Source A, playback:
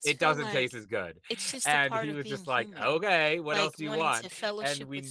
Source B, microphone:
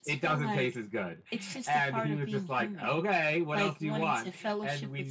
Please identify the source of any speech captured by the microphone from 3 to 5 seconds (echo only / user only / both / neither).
echo only